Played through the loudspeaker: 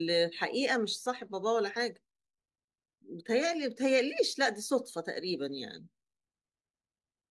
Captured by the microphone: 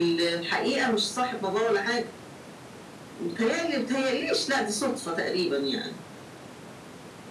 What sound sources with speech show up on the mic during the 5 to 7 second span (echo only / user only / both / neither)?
echo only